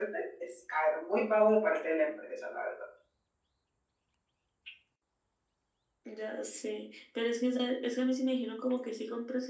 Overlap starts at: none

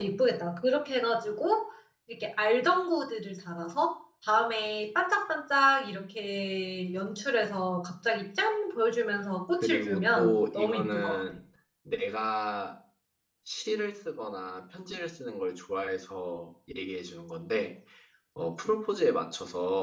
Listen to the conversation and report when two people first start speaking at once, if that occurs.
9.6 s

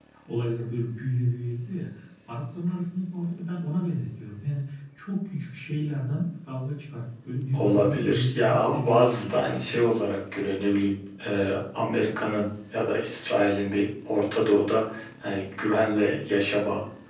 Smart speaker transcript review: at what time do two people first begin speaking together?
7.5 s

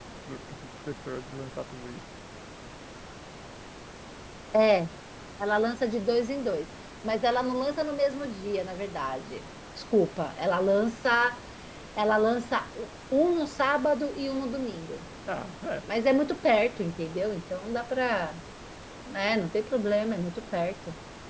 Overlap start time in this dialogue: none

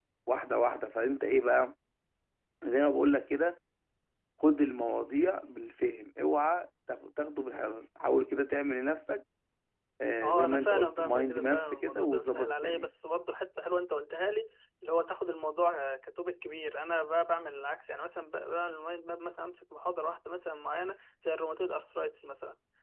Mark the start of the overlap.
10.2 s

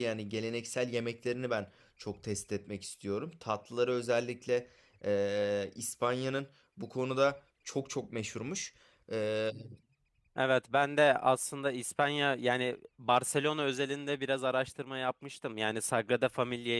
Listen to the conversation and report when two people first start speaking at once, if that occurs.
none

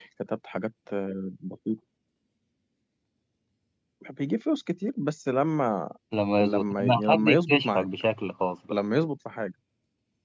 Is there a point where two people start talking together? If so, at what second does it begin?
6.4 s

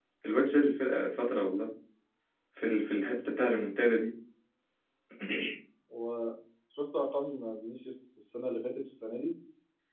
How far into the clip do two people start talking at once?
none

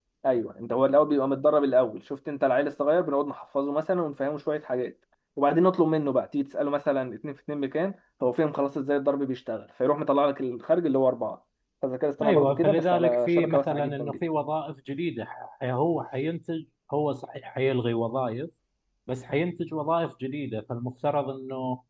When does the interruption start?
12.2 s

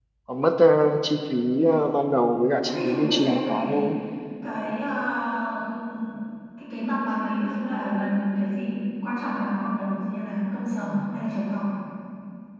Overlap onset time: 2.6 s

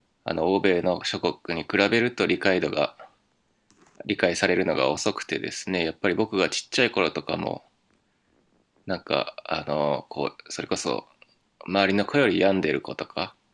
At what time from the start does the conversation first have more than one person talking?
none

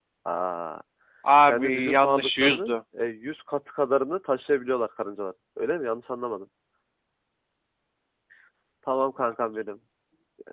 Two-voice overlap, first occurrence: 1.5 s

